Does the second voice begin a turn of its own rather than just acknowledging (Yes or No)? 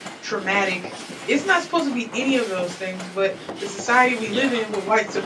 No